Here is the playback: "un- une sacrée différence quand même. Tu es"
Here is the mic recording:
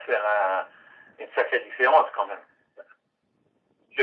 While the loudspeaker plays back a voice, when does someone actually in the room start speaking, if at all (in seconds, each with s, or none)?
none